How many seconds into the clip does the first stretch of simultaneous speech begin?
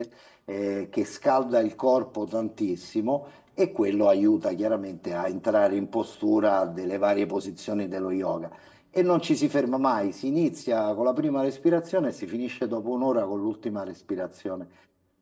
none

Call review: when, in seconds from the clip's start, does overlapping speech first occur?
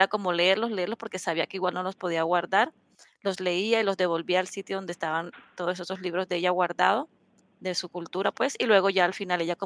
none

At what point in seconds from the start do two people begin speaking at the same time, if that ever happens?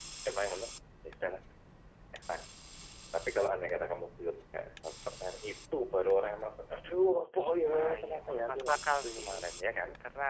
8 s

